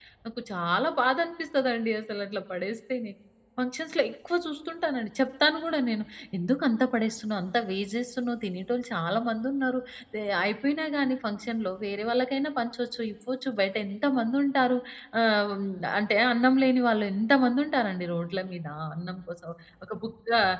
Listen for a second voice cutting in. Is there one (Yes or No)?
No